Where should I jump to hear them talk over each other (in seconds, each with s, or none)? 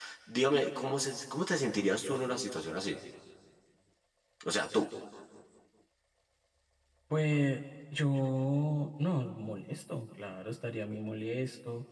none